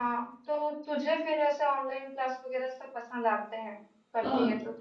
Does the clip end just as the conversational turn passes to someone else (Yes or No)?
Yes